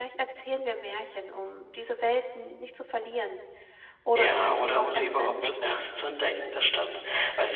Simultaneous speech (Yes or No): Yes